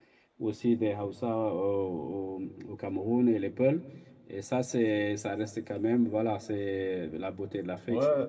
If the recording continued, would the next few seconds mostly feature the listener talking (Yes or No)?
Yes